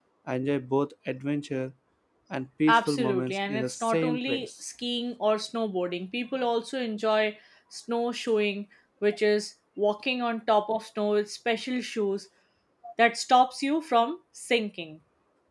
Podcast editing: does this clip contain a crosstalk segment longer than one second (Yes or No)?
Yes